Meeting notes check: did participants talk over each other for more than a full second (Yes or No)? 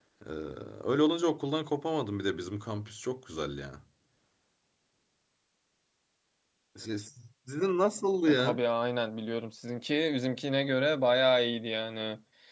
No